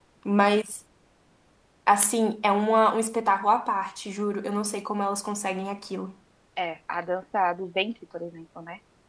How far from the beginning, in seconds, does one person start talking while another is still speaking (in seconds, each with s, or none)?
none